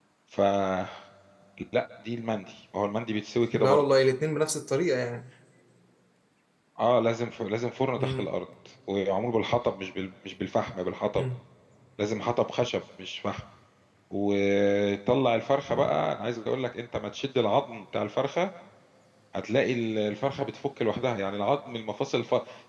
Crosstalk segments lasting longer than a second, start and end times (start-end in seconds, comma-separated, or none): none